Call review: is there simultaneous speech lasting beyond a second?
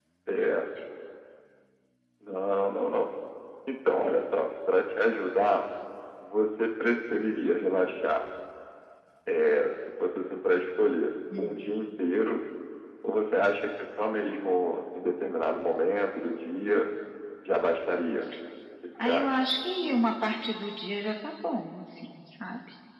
No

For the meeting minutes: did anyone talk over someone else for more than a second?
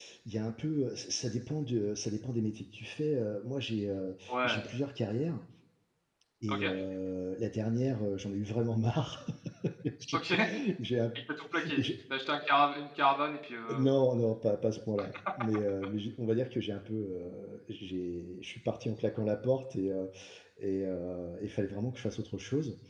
No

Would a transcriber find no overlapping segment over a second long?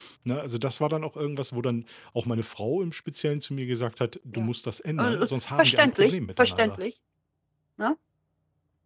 No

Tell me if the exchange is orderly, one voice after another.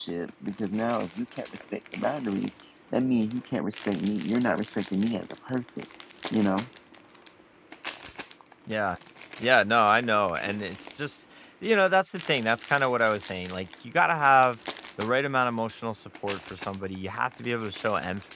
Yes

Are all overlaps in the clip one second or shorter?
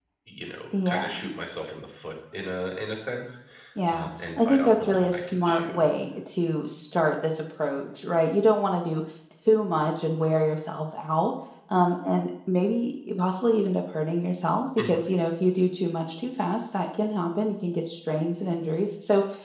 No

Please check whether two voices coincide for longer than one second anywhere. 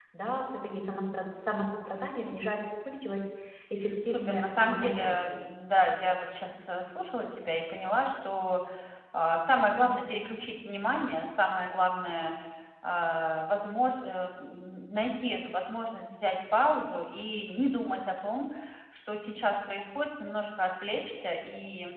Yes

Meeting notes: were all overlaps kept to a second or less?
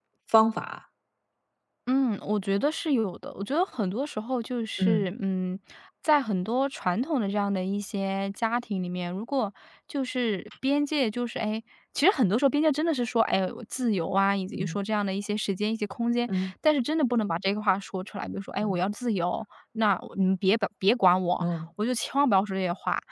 Yes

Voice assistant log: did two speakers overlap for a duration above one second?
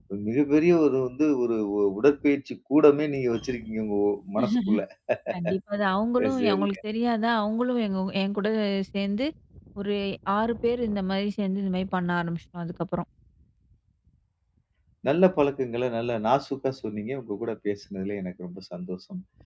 No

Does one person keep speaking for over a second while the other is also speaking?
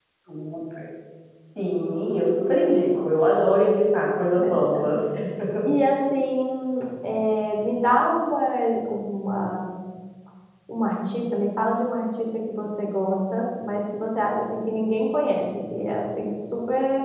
No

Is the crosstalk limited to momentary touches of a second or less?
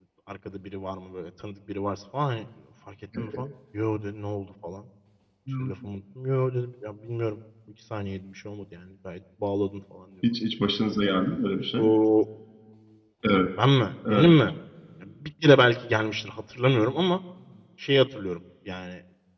Yes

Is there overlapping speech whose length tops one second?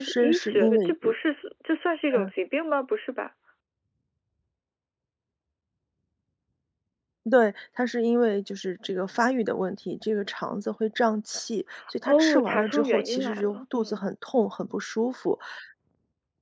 Yes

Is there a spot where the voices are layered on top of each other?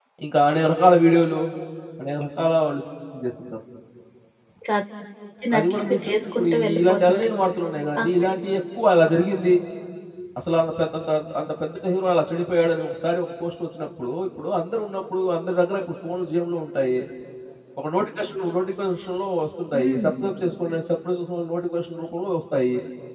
Yes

